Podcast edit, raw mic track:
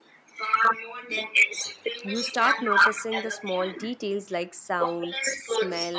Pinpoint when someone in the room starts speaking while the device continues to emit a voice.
2.0 s

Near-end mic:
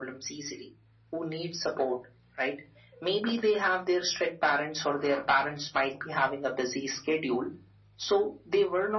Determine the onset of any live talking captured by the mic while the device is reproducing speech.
none

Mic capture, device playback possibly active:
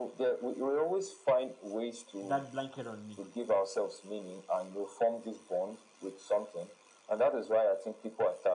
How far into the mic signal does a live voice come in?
2.2 s

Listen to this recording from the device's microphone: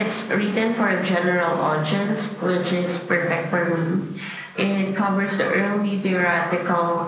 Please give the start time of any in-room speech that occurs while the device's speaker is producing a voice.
none

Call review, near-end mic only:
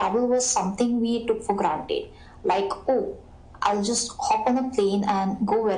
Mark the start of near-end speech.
none

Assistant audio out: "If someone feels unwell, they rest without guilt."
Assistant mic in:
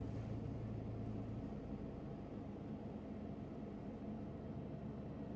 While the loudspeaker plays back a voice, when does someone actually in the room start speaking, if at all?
none

